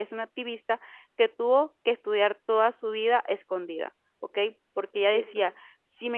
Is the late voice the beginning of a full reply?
No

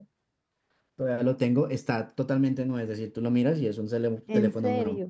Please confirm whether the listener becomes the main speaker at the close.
Yes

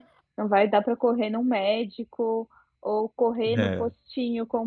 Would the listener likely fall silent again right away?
Yes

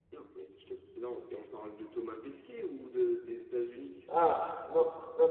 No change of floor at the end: No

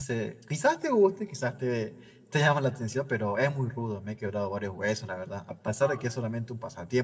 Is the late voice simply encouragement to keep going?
Yes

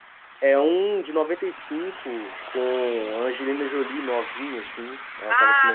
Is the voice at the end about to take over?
Yes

